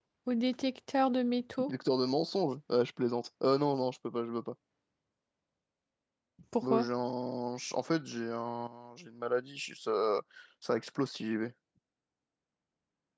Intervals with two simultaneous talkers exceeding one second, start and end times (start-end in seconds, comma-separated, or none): none